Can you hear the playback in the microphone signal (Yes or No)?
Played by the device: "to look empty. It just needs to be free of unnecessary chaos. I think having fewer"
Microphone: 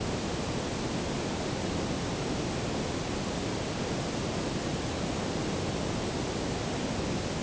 No